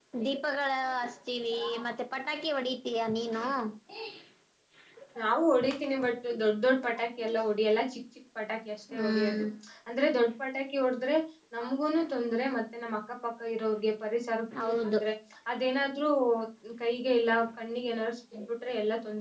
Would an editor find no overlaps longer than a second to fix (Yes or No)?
Yes